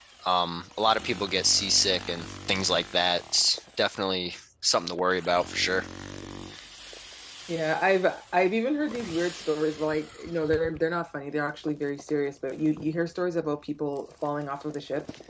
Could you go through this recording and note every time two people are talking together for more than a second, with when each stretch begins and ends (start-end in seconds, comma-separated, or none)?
none